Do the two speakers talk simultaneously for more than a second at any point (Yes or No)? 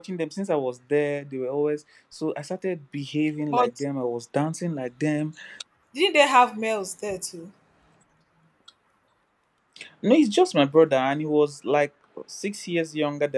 No